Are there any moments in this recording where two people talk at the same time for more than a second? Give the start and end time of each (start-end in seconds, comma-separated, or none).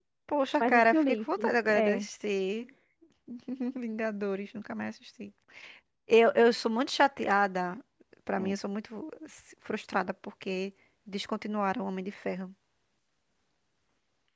0.6-2.0